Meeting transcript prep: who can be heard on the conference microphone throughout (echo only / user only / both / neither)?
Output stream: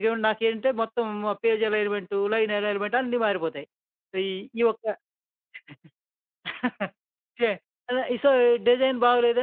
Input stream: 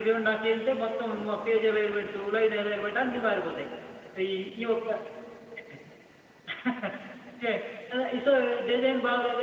echo only